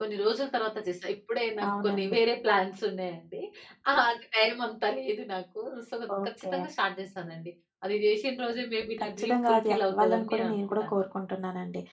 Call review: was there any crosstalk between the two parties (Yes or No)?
Yes